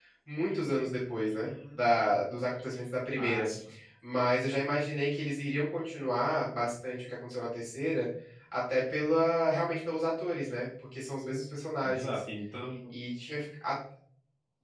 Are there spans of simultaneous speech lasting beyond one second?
No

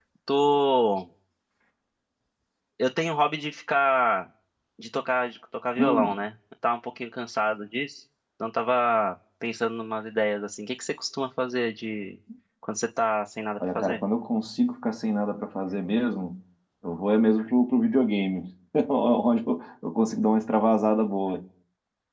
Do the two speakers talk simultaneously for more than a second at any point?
No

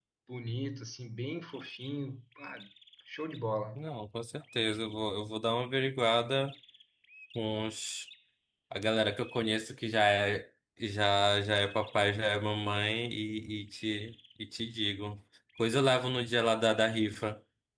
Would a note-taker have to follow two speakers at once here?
No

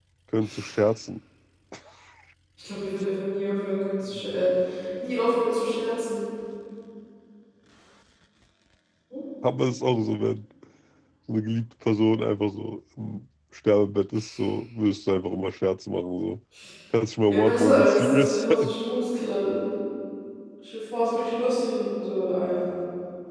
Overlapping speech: Yes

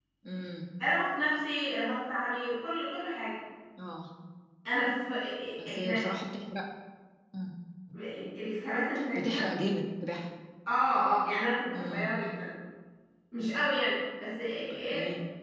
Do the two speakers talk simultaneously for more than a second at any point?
No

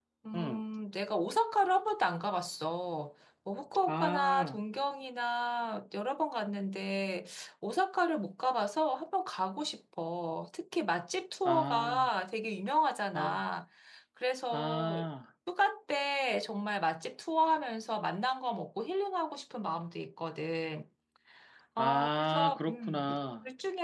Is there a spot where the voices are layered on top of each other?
Yes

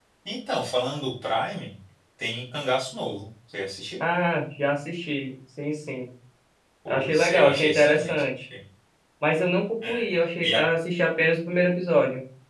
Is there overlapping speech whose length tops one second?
Yes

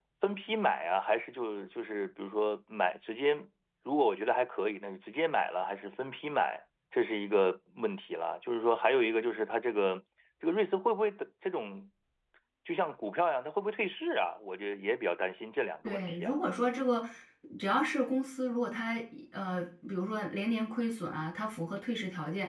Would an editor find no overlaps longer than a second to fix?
Yes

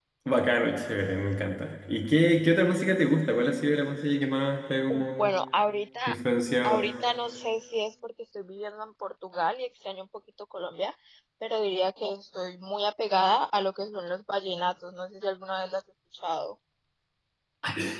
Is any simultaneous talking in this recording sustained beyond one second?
No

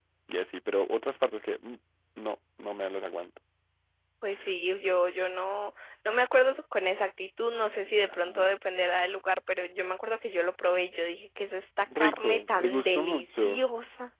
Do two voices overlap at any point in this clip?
Yes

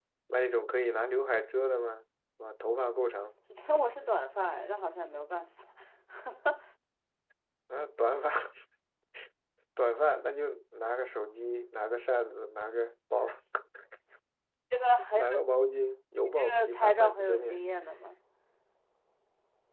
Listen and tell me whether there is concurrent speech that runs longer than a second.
Yes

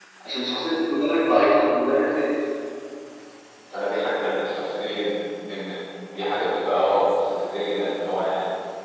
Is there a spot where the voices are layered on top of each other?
No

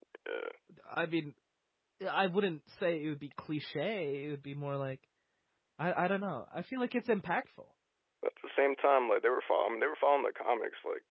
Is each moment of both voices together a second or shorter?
Yes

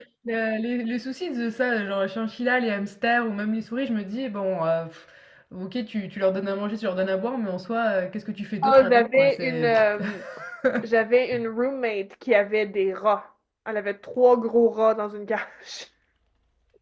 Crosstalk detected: Yes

